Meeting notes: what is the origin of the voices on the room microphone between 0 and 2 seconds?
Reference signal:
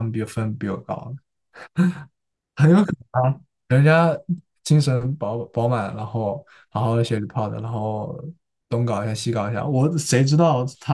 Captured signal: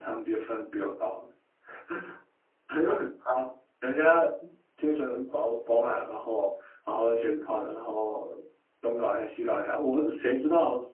echo only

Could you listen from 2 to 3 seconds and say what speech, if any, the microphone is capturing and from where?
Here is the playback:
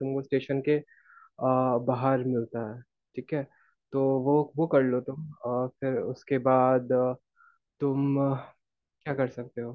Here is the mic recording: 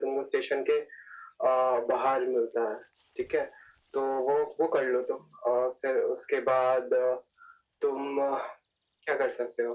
echo only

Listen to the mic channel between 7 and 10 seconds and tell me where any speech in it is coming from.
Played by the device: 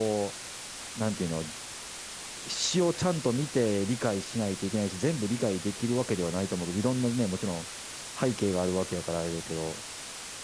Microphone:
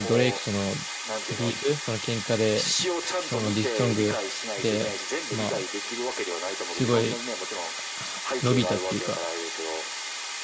both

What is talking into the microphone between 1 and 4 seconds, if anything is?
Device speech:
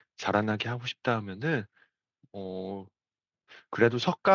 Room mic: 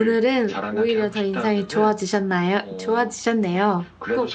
both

